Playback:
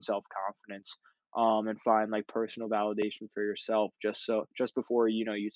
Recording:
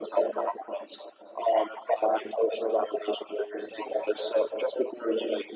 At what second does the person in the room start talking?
none

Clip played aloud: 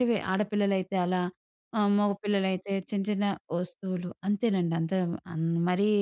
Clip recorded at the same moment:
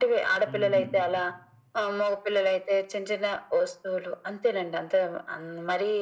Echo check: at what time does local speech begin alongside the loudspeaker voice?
0.5 s

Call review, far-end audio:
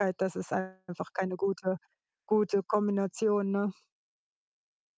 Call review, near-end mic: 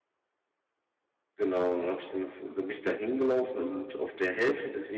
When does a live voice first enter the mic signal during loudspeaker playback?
1.4 s

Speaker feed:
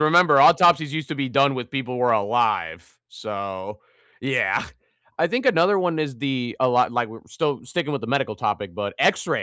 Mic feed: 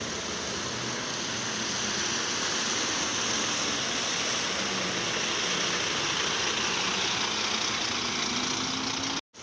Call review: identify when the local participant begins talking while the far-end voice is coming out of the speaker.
none

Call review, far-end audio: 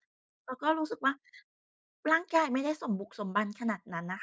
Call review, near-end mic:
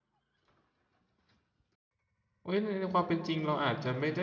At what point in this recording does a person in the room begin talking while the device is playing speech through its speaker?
2.5 s

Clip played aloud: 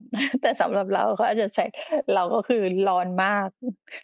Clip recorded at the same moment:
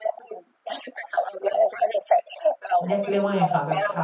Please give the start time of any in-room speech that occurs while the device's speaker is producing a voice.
2.9 s

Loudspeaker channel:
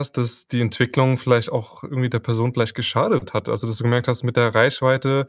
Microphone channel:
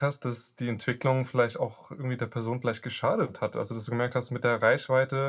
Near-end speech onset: none

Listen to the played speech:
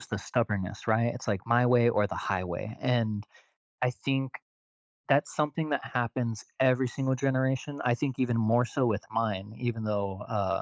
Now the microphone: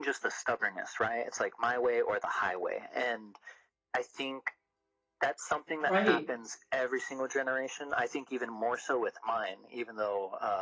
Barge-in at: 5.8 s

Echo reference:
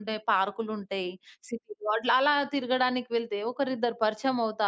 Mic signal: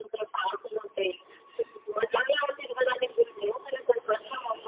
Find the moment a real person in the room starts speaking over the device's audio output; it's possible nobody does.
none

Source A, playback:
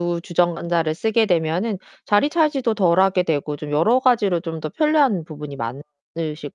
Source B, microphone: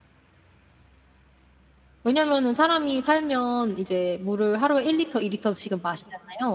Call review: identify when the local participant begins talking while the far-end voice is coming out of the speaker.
2.0 s

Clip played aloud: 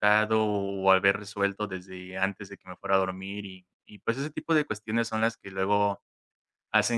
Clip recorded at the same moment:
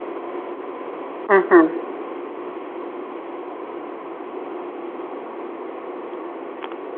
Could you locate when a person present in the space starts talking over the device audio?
1.3 s

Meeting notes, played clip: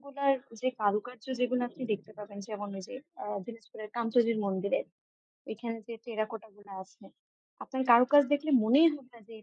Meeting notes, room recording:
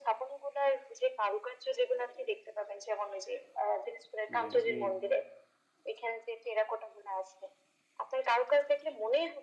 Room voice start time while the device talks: 4.3 s

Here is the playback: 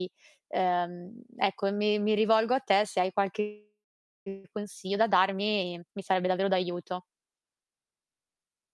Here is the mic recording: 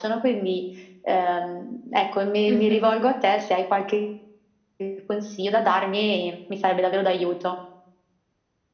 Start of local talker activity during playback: 2.5 s

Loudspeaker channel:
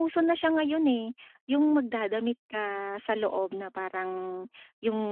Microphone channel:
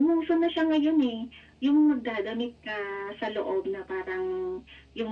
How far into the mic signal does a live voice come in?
none

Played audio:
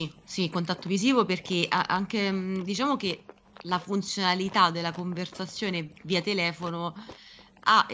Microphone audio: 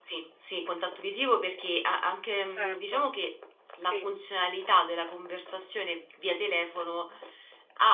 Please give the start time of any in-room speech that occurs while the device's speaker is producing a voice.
2.5 s

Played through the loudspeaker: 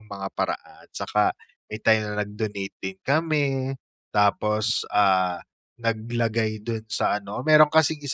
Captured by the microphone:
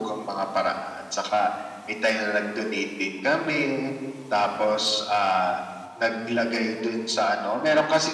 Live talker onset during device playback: none

